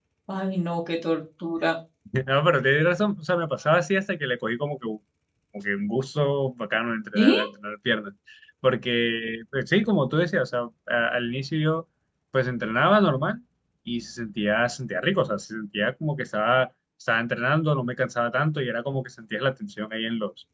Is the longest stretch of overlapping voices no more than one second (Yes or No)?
Yes